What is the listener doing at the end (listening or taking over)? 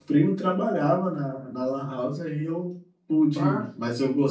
listening